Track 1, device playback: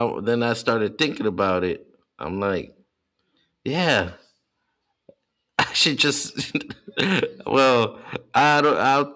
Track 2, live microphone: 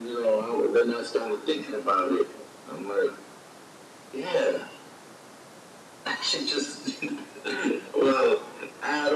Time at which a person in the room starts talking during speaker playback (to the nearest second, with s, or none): none